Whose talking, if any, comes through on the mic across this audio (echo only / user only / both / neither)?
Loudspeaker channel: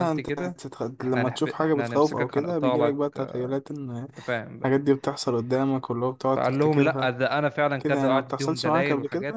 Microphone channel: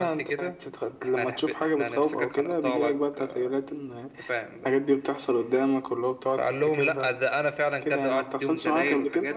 echo only